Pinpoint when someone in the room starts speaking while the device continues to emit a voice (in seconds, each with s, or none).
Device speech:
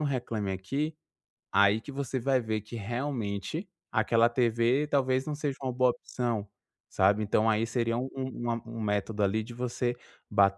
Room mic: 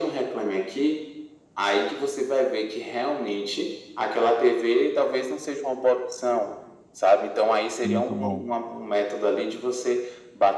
7.8 s